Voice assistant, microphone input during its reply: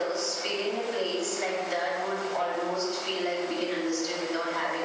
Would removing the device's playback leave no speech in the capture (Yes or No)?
Yes